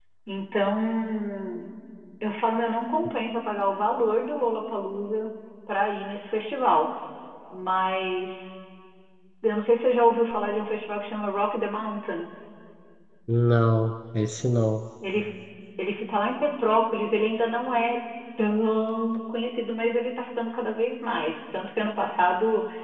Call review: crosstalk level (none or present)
none